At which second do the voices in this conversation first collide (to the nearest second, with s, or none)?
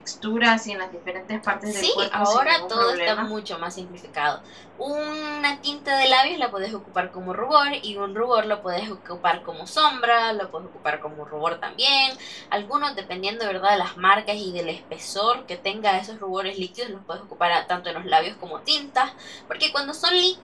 2 s